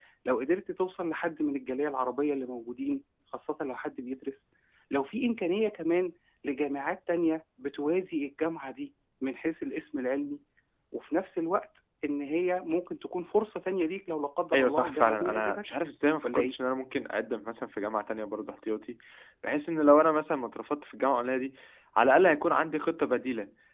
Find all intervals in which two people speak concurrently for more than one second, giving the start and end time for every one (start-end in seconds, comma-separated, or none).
14.5-15.8